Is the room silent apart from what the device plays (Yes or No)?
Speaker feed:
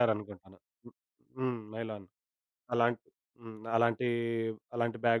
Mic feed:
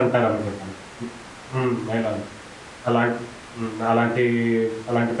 Yes